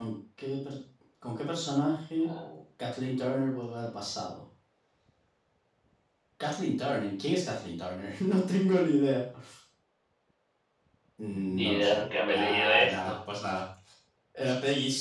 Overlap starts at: 11.4 s

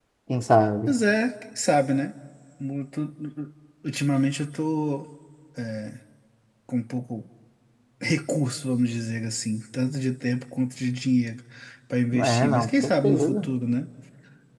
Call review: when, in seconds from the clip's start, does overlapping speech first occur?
12.2 s

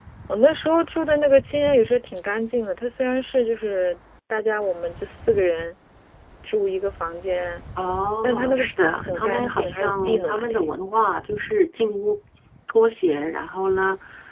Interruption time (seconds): 8.2 s

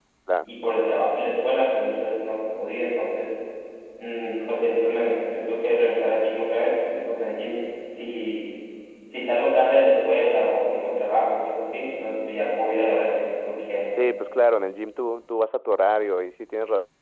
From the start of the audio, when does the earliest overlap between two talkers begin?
none

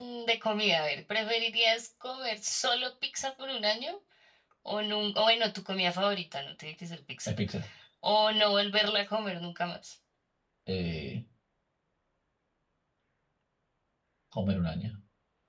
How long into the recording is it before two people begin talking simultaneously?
none

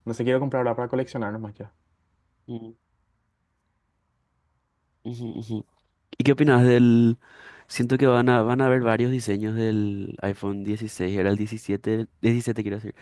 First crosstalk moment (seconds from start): none

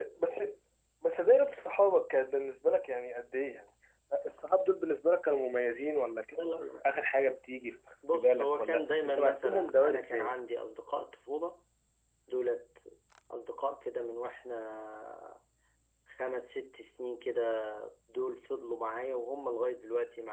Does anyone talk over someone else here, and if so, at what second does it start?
8.1 s

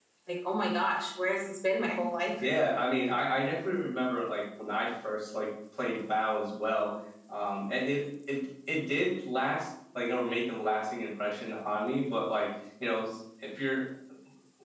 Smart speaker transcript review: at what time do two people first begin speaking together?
none

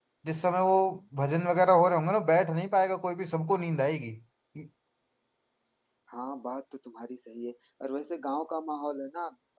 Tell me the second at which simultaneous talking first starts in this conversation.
none

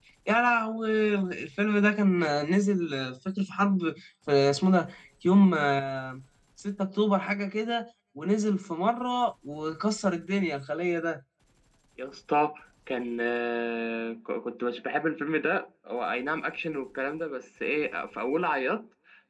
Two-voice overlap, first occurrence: none

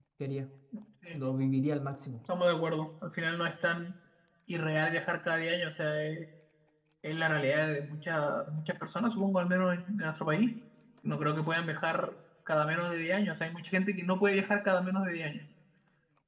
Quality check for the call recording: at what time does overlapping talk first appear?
none

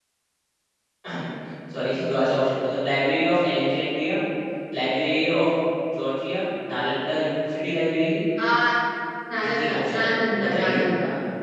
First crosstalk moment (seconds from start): 9.4 s

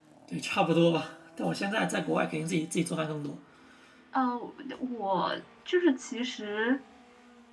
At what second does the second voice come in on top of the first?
none

